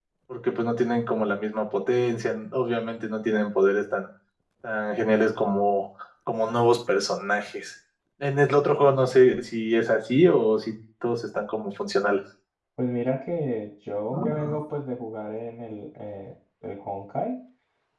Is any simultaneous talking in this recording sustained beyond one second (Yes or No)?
No